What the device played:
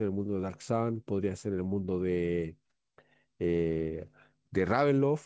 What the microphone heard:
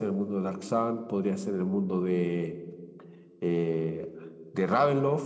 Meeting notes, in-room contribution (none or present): none